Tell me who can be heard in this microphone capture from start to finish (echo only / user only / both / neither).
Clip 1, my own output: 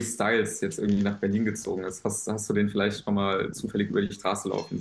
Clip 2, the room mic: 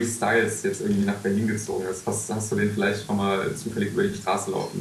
echo only